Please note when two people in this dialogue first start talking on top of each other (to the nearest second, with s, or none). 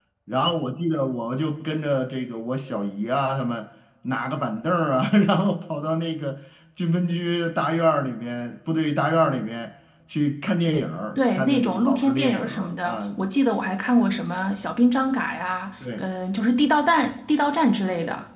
11 s